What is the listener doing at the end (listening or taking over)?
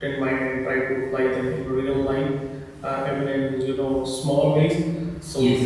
listening